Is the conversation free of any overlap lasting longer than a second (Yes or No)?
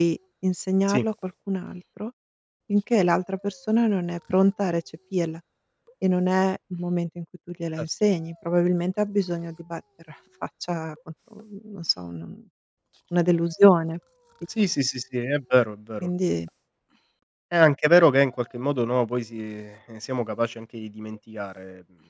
Yes